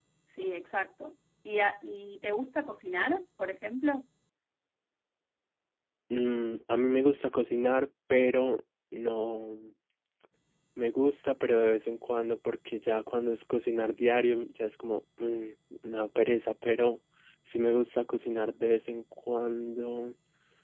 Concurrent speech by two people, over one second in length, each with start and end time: none

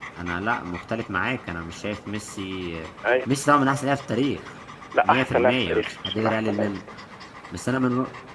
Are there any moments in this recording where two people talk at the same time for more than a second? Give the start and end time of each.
5.0-6.7

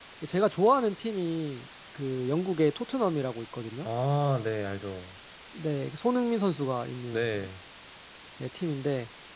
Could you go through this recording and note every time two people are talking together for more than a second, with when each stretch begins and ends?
none

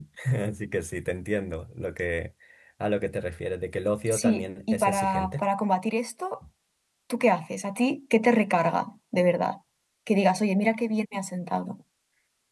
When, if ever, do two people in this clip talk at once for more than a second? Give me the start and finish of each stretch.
4.1-5.5

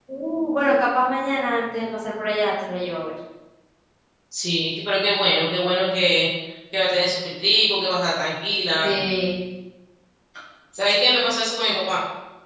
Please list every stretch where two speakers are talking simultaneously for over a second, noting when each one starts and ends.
none

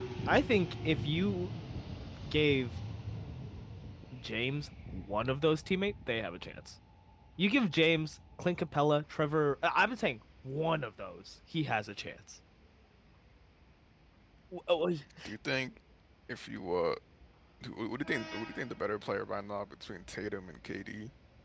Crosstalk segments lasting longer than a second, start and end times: none

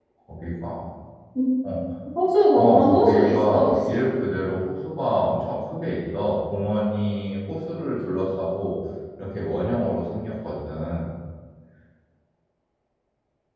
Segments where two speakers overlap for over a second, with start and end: 2.5-4.0

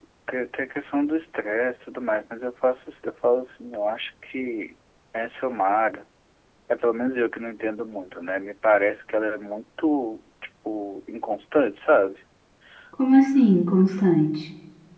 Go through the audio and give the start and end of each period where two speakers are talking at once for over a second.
none

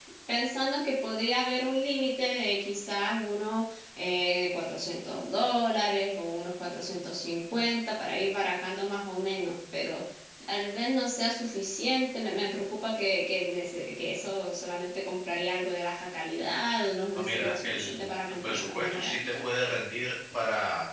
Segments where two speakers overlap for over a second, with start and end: 17.1-19.4

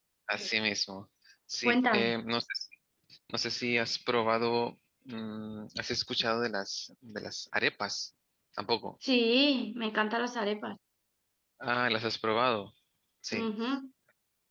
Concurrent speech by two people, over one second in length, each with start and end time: none

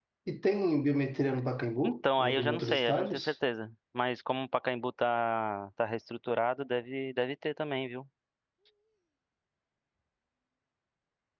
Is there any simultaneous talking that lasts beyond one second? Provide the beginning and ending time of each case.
1.8-3.3

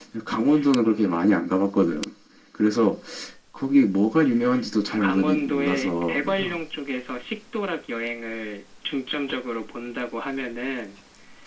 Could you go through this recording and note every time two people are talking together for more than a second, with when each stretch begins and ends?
5.0-6.6

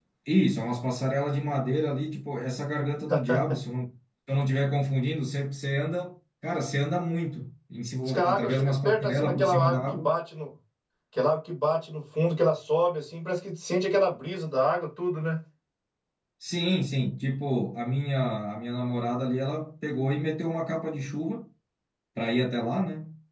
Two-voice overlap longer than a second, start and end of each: 8.1-10.1

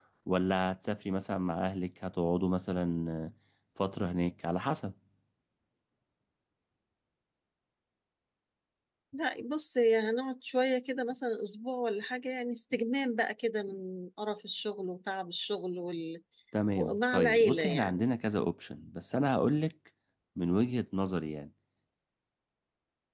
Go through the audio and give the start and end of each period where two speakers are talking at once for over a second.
16.8-18.1

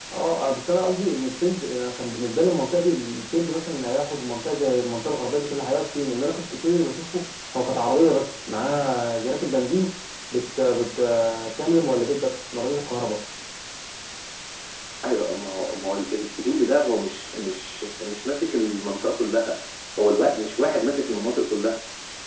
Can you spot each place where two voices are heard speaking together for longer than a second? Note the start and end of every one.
none

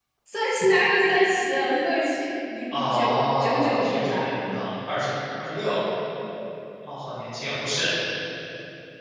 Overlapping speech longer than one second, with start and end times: 2.7-4.3

